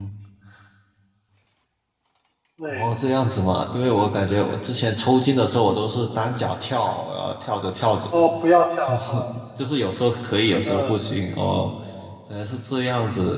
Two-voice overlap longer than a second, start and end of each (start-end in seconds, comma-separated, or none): none